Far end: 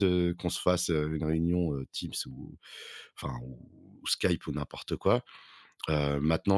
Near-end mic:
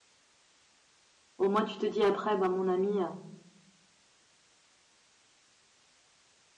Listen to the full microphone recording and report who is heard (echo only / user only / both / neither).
user only